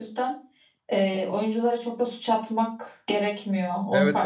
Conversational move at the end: taking over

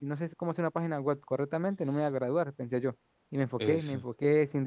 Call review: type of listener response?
listening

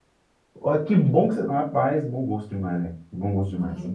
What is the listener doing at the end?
taking over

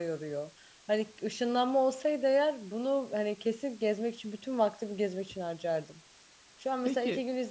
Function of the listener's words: listening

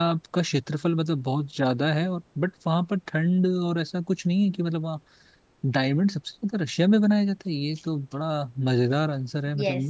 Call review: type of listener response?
taking over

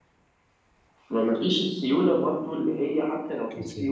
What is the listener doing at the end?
listening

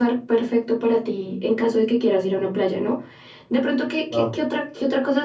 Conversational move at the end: listening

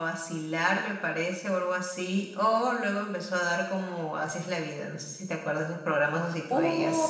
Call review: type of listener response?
taking over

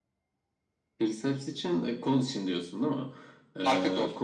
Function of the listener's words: listening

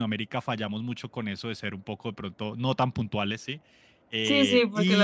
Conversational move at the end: taking over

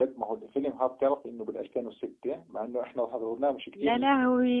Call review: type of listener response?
taking over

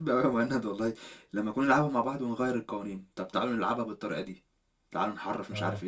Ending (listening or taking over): taking over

